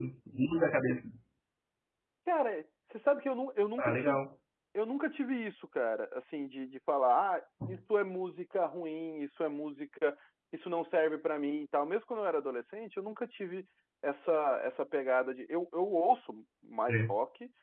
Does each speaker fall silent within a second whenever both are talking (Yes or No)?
Yes